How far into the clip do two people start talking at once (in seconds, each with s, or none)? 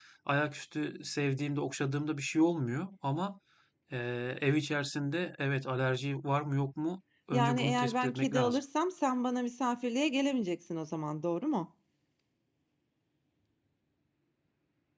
7.3 s